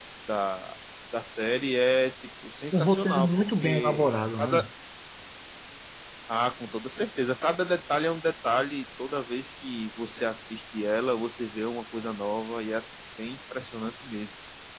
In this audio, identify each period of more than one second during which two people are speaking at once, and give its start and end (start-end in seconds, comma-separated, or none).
2.7-4.6